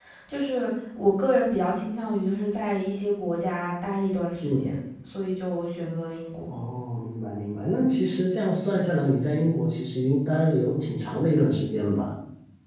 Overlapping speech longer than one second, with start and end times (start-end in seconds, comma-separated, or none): none